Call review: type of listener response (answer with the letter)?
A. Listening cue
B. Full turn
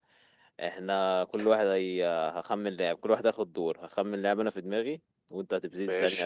A